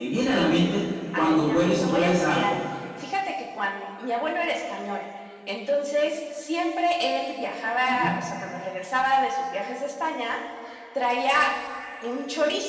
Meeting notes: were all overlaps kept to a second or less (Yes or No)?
No